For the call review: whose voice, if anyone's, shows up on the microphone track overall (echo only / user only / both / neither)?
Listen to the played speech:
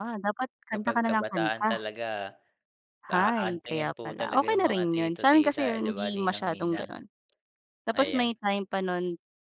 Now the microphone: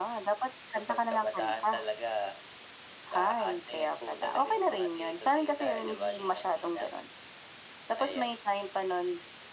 echo only